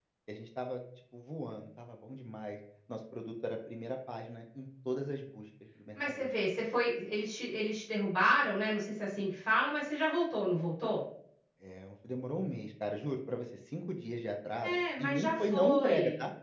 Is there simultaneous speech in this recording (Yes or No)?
Yes